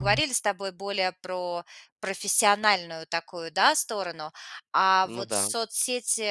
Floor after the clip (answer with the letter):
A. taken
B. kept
B